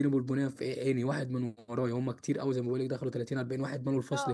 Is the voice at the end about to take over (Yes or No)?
Yes